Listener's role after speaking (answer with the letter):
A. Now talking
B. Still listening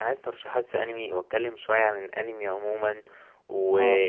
B